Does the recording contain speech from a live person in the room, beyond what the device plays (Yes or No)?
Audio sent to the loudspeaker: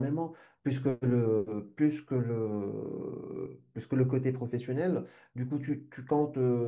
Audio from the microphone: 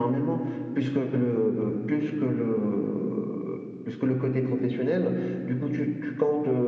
No